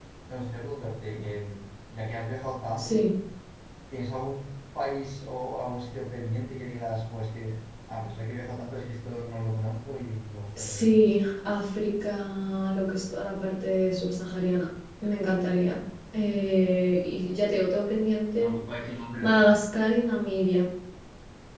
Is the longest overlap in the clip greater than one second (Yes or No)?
No